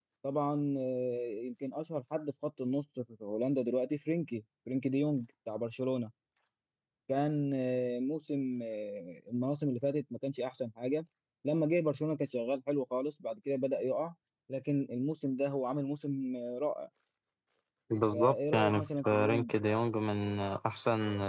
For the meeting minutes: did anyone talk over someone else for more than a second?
Yes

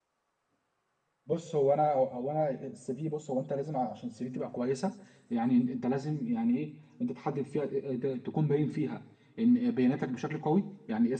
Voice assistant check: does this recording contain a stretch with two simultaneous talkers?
No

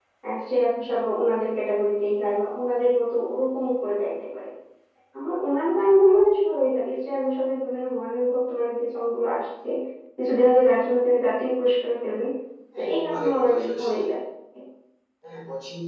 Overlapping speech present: Yes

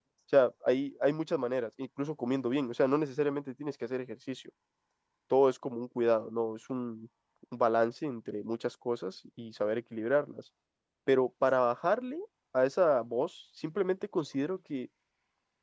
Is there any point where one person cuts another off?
No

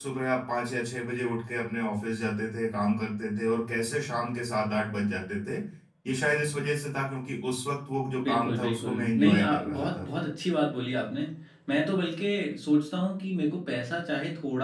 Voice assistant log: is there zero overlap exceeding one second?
No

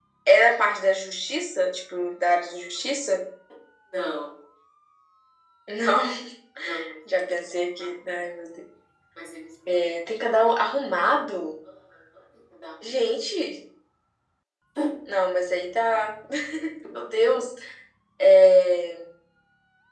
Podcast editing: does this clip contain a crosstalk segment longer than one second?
No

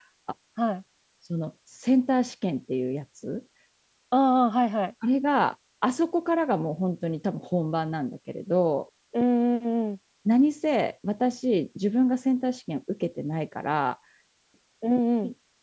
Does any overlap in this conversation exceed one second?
No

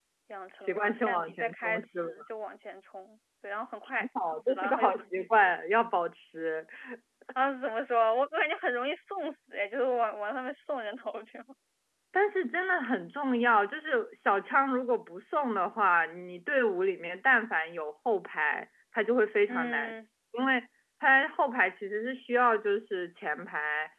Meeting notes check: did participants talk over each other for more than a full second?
Yes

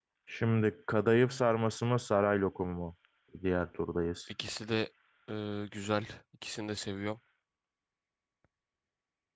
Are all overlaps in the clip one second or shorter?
Yes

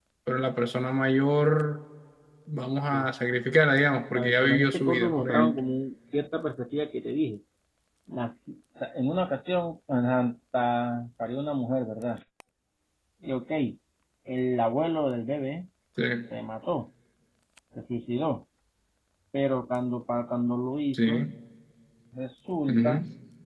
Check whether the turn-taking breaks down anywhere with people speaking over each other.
Yes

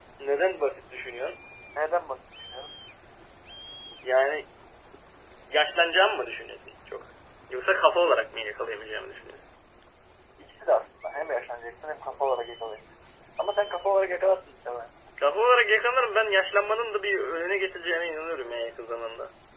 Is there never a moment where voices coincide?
Yes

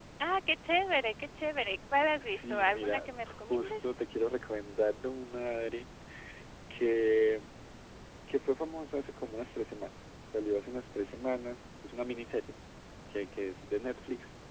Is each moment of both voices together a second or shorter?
No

